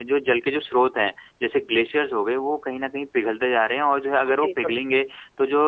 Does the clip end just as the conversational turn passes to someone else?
No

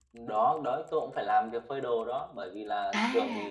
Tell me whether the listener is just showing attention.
Yes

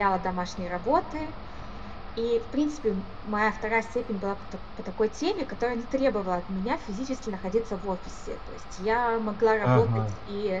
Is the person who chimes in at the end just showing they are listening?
Yes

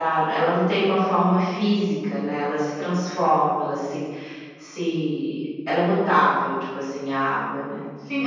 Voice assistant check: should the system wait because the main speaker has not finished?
No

